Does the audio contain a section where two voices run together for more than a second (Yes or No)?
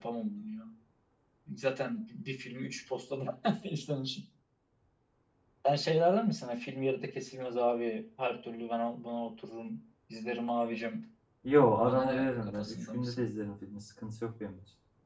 Yes